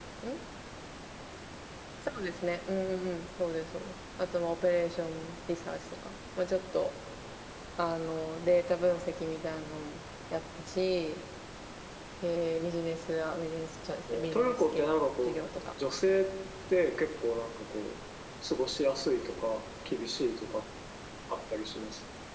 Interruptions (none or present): present